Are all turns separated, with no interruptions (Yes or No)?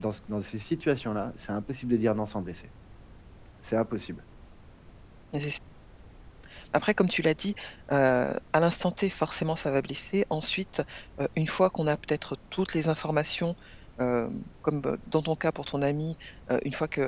Yes